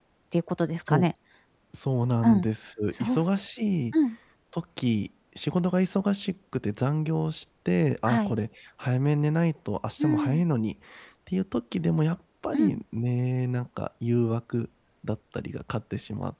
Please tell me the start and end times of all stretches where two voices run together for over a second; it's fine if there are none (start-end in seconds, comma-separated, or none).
none